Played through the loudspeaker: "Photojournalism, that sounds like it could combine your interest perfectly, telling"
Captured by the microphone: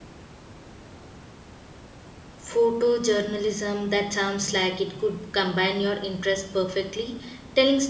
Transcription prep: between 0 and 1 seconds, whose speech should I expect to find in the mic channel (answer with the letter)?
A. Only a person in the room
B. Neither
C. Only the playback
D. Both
B